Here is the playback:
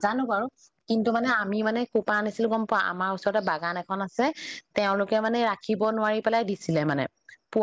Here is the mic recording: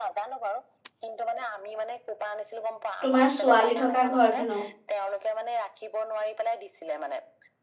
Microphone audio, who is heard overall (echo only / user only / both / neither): both